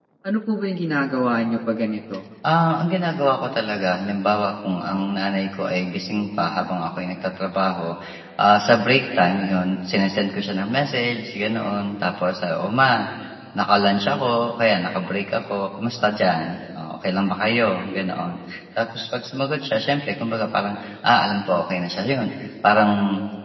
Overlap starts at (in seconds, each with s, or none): none